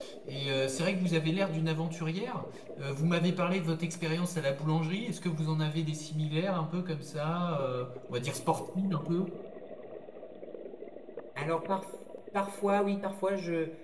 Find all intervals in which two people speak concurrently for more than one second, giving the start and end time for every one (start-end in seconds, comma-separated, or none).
none